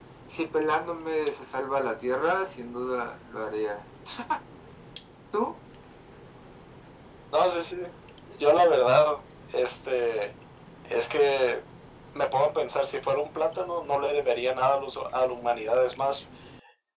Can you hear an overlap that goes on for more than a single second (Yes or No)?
No